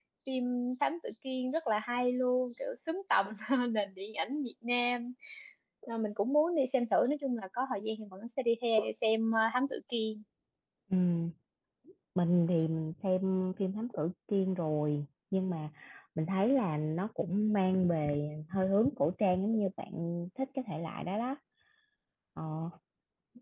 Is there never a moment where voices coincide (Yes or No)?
Yes